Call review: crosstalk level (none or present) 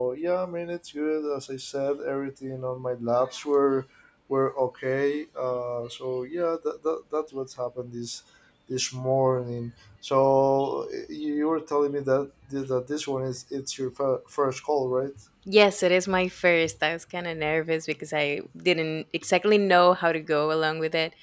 none